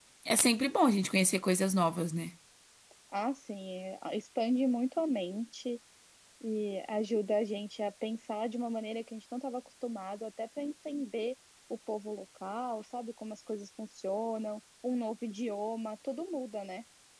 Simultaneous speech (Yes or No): No